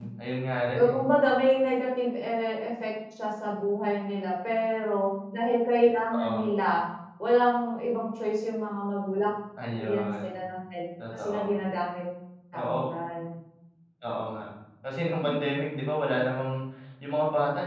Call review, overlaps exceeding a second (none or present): none